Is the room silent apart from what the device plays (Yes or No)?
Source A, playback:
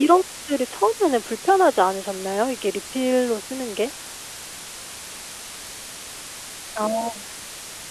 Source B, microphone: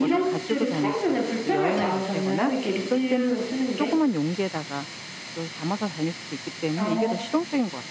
No